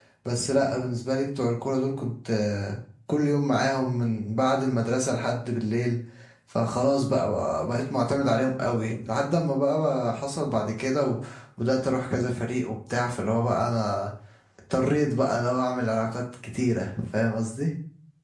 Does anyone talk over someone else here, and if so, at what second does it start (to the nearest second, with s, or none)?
none